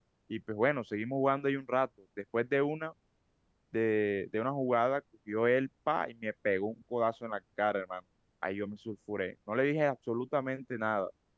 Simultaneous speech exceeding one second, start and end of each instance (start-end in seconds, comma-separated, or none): none